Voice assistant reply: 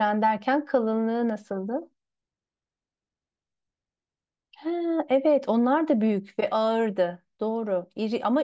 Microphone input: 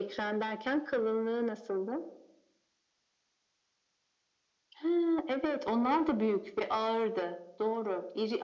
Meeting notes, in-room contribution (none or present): none